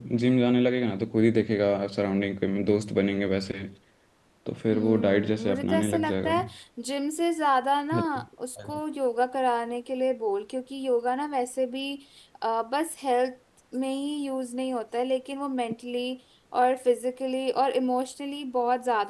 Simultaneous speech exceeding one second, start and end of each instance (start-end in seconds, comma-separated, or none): 4.7-6.3